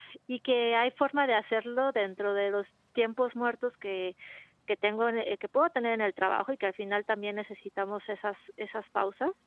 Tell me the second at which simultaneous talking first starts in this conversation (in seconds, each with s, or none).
none